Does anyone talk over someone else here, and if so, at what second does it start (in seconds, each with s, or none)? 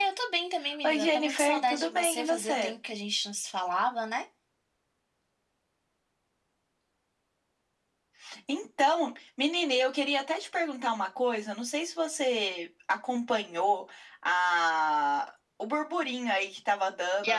0.9 s